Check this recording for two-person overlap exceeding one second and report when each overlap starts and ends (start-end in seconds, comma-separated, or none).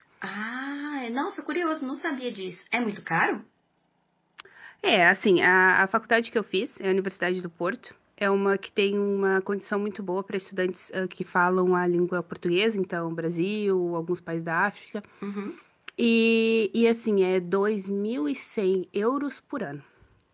none